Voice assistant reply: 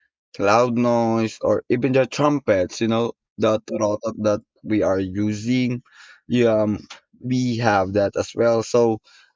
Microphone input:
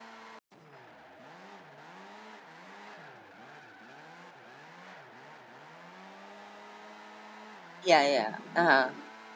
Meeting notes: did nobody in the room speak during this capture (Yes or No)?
No